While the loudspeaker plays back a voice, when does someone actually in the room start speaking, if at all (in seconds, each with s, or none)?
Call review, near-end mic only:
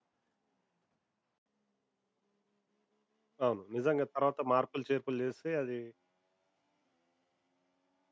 3.5 s